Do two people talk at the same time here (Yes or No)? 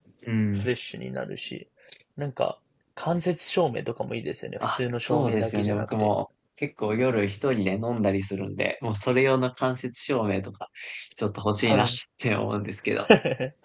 Yes